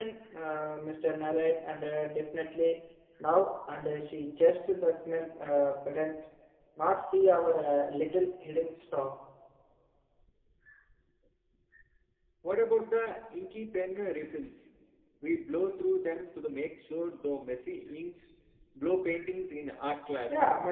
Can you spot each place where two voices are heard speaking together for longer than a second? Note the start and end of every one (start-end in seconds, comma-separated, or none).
none